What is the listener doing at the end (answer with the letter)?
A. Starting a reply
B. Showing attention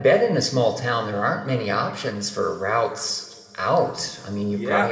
A